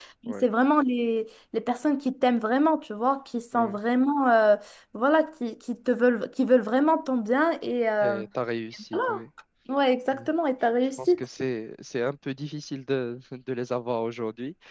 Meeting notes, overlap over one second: none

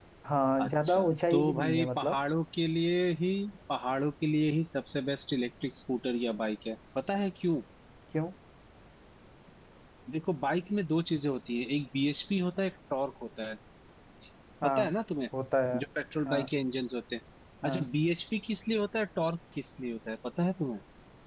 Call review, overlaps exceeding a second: present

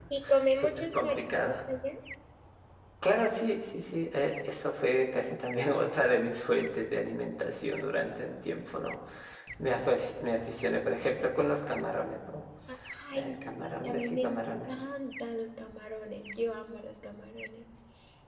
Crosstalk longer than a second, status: present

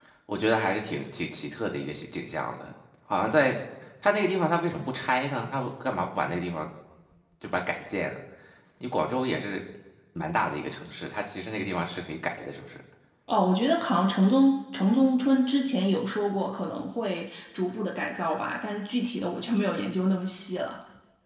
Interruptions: none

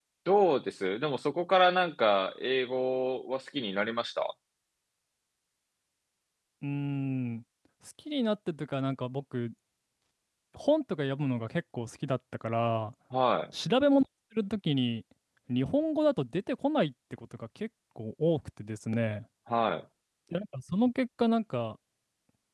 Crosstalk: none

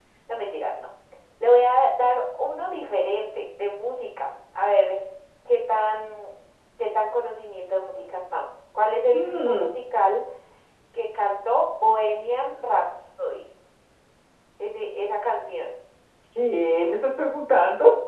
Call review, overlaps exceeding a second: none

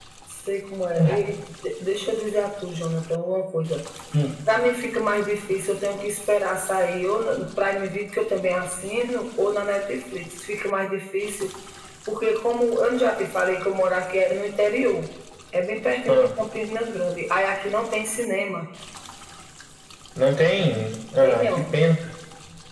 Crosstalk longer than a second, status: none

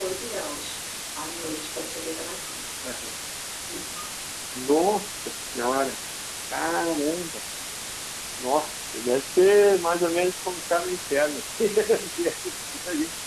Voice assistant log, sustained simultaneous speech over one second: none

